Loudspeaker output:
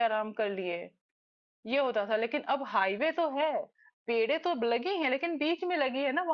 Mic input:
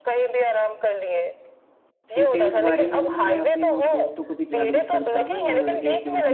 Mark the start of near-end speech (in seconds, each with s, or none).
2.1 s